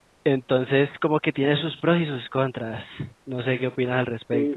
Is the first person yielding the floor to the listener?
Yes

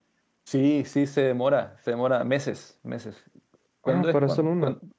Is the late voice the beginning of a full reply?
Yes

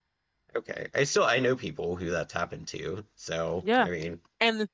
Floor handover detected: Yes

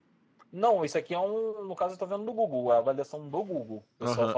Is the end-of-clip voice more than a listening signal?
Yes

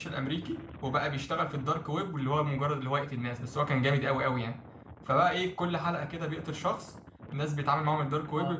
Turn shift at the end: No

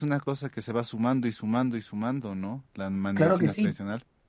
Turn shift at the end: Yes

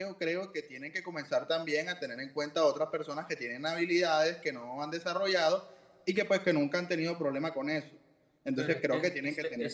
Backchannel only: No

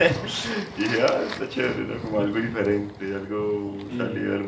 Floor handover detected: Yes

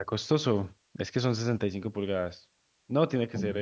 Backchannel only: Yes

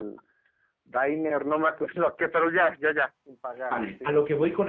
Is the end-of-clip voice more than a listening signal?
Yes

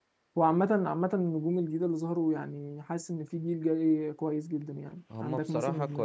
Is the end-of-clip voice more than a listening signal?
Yes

